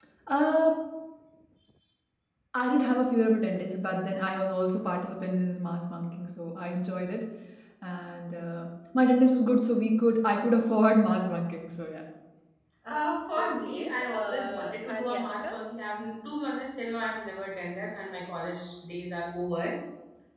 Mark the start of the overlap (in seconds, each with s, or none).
13.4 s